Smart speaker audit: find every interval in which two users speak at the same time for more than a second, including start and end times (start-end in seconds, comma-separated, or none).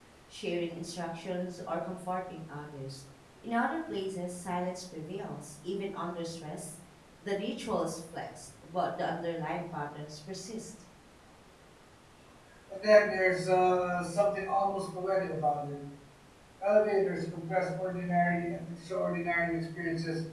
none